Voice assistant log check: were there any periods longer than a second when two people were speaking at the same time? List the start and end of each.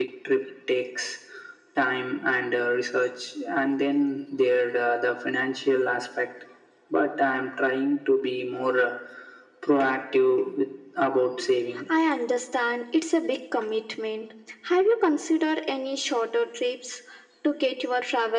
none

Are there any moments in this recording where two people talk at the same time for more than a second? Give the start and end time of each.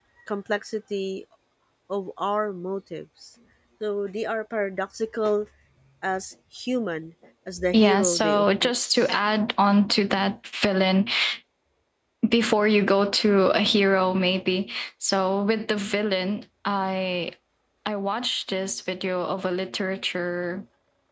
7.7-9.1

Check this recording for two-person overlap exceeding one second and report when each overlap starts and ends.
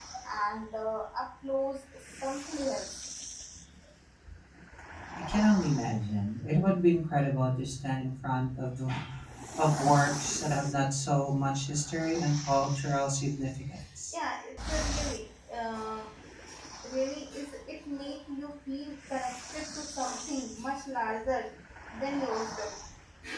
none

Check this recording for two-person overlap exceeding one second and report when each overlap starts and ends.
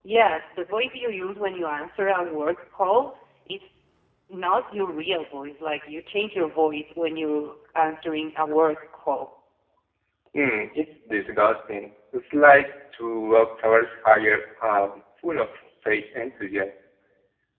none

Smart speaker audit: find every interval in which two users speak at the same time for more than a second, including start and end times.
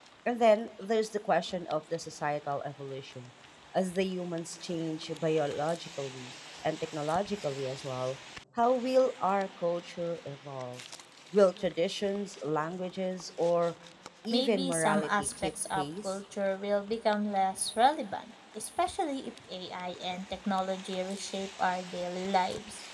14.3-16.2

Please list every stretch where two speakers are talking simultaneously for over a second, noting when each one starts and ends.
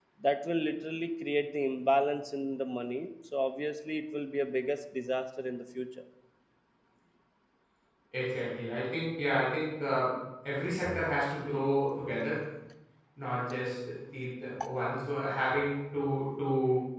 none

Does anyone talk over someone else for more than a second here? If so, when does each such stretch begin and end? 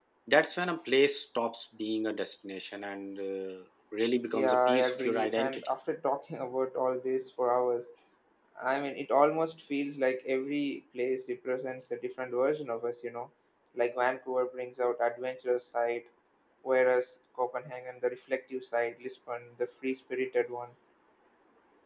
4.3-5.7

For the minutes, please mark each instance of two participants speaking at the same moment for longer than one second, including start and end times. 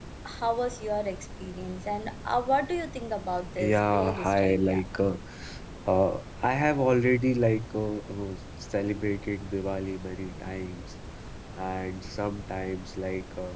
3.6-4.8

